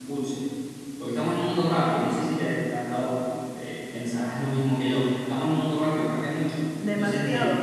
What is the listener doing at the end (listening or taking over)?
taking over